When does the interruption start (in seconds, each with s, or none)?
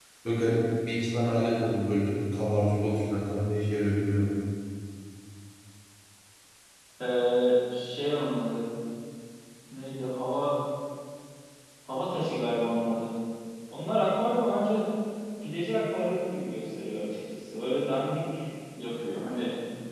none